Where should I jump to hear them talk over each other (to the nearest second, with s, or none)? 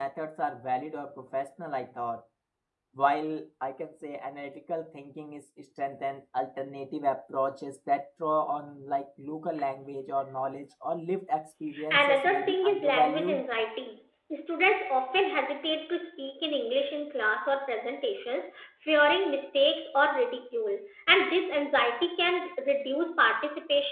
12 s